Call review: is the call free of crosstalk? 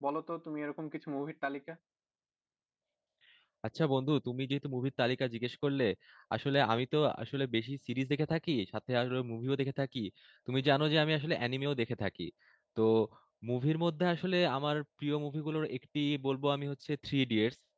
Yes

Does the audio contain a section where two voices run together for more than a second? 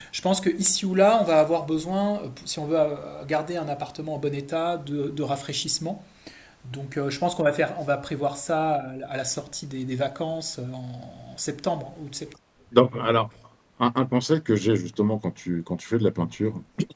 No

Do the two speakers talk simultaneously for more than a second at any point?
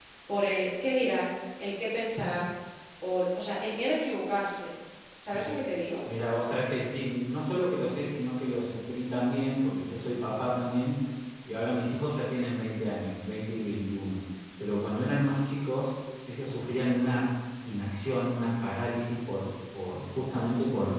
No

